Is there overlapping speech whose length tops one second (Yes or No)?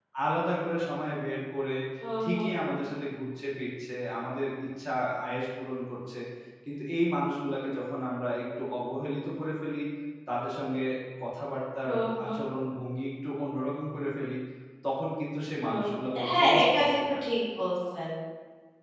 Yes